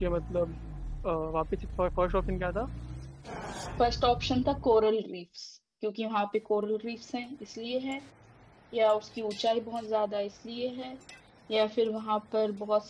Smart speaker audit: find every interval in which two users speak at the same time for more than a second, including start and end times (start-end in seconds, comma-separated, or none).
none